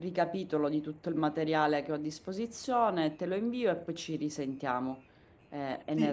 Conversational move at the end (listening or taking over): taking over